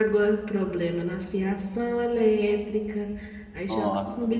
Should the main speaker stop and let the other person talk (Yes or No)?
No